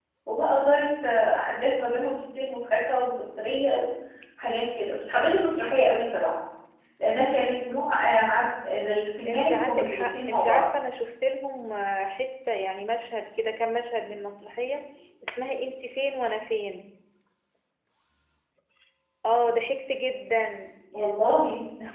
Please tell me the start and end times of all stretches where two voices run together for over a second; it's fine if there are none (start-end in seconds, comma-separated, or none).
9.3-10.7